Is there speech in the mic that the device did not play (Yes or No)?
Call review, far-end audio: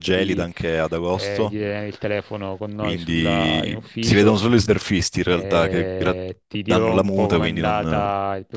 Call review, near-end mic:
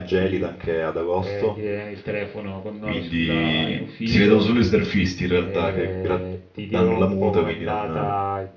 No